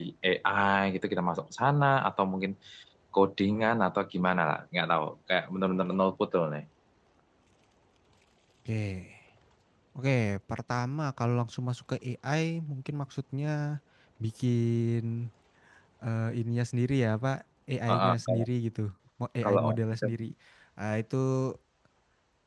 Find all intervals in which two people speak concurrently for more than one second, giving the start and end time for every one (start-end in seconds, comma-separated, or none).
none